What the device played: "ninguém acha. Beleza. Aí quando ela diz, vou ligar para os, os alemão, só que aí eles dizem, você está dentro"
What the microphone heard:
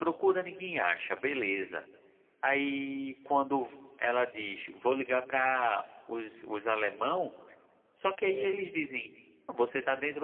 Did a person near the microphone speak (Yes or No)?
Yes